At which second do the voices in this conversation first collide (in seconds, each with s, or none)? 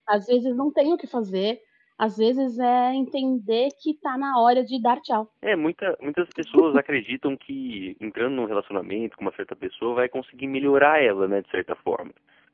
none